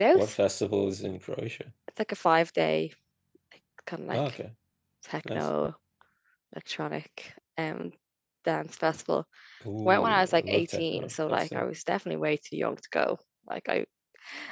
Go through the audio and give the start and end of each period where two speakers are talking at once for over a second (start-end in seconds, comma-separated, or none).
9.8-11.6